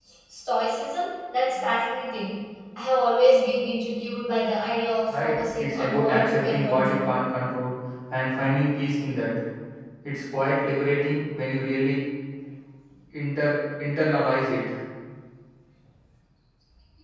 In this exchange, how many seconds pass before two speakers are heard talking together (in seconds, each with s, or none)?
5.1 s